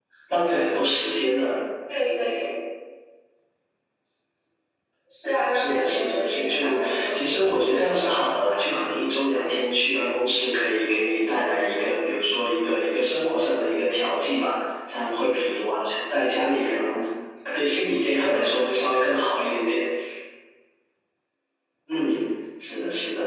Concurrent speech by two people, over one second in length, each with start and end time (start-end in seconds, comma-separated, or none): 5.5-7.7